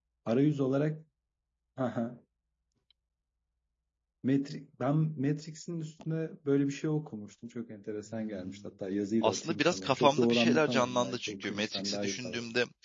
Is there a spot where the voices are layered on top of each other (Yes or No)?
Yes